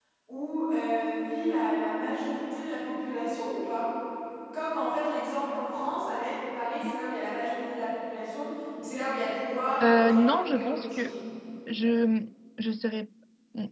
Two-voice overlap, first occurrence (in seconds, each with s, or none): 9.8 s